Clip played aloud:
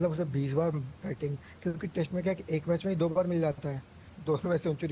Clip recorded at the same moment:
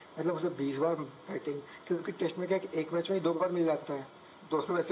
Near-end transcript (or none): none